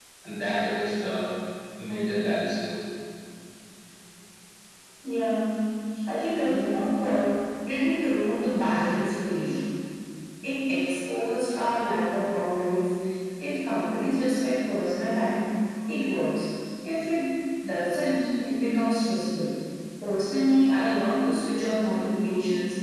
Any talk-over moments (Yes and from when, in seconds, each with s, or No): No